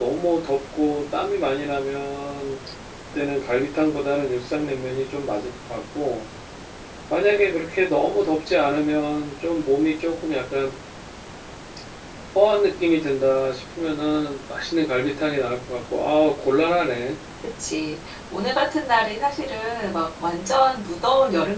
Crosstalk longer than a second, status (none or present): none